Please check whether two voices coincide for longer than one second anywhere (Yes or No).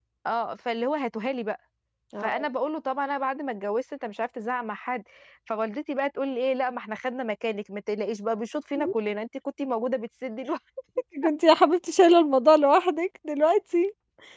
No